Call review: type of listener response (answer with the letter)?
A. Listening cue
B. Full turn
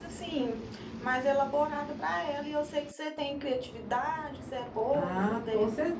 B